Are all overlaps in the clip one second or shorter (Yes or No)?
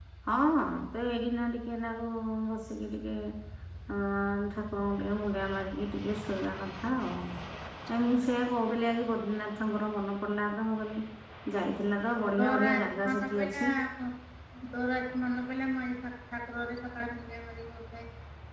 No